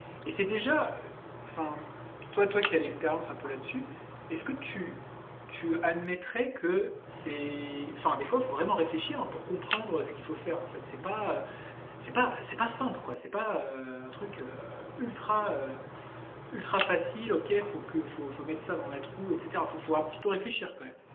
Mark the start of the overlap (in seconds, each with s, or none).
none